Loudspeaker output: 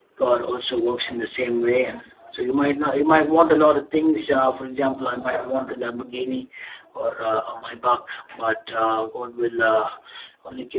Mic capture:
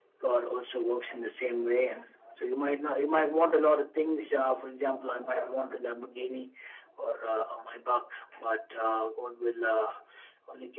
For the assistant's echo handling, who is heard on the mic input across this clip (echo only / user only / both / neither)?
echo only